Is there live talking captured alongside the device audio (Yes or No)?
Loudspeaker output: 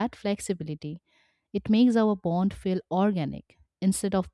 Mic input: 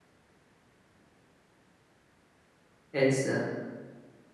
Yes